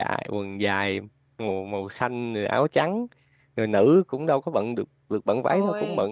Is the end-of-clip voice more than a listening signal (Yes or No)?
No